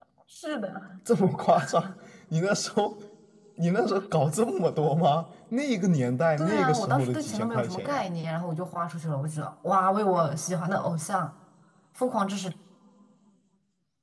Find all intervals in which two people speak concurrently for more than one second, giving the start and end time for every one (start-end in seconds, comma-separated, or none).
6.4-8.0